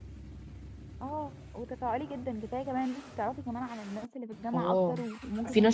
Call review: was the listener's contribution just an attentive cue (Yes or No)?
No